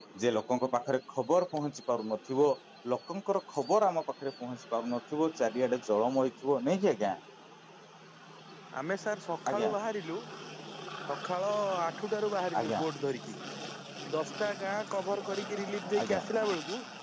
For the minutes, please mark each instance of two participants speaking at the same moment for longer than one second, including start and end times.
none

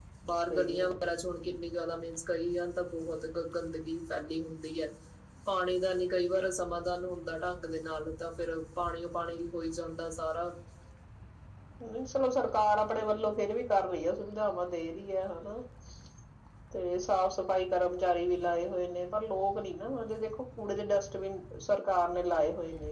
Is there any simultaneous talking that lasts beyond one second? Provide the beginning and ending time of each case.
none

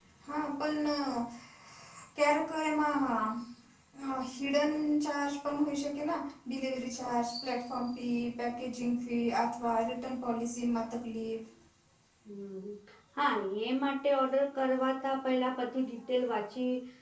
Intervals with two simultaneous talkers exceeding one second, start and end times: none

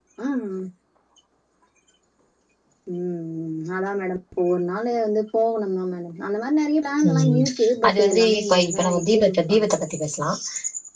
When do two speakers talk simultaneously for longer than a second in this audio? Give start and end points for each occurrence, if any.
7.9-9.6

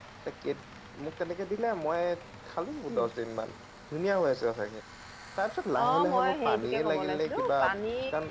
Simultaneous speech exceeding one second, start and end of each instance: 5.8-7.5

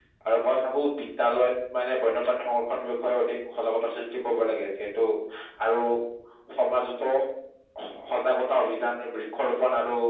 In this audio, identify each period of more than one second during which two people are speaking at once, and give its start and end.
none

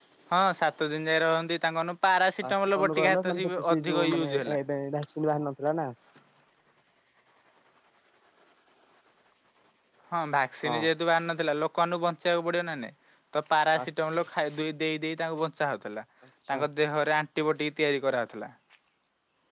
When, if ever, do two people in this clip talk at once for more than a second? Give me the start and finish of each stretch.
2.5-4.6

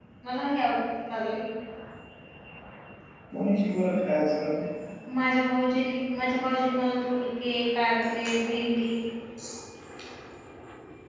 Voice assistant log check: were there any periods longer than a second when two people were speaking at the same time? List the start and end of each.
none

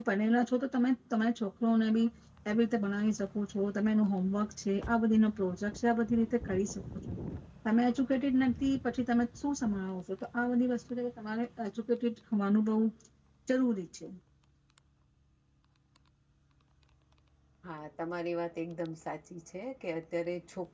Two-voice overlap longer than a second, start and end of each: none

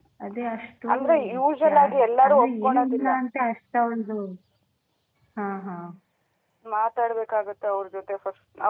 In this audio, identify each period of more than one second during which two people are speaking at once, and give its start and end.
1.7-3.1

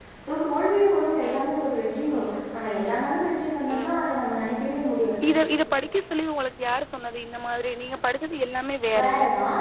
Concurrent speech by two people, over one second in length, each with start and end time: none

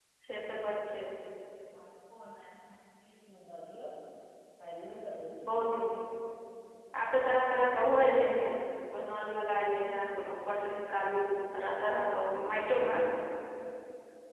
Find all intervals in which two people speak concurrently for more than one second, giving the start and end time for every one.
none

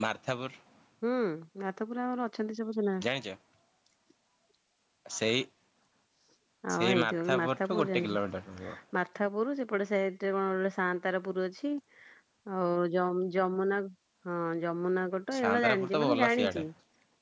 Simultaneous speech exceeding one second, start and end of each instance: 6.8-8.1, 15.4-16.6

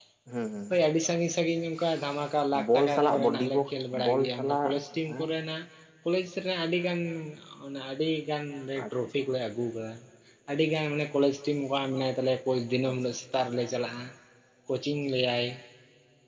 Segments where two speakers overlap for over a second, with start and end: 2.7-4.7

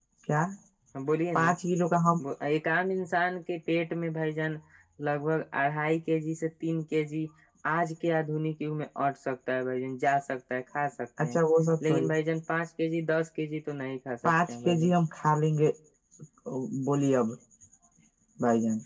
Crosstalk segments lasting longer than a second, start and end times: none

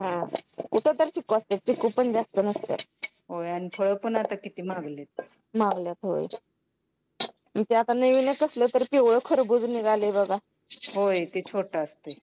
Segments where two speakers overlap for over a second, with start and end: none

